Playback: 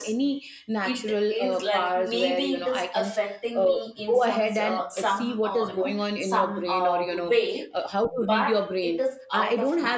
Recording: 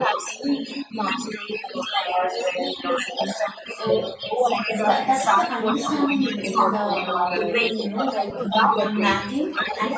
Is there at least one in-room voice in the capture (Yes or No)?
Yes